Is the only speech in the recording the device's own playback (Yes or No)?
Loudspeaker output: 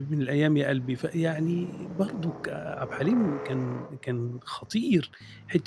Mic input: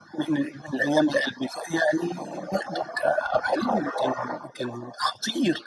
Yes